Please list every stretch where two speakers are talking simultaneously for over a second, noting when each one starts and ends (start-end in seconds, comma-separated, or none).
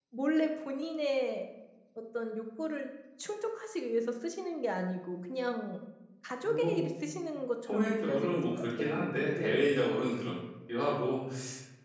7.7-9.7